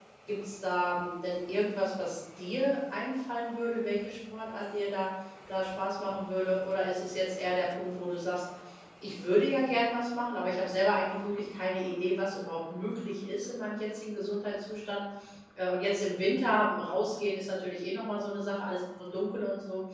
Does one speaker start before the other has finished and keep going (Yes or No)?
No